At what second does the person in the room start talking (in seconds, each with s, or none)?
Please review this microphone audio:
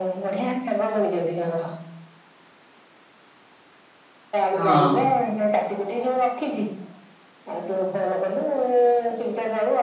4.5 s